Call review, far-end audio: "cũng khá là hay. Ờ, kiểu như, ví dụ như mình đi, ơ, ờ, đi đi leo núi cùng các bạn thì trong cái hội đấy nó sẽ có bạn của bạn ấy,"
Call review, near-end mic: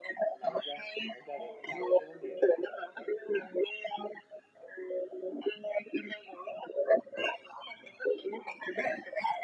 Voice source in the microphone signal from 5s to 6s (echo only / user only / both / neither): echo only